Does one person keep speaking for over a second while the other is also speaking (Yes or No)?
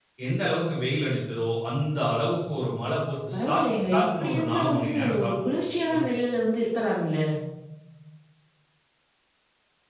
Yes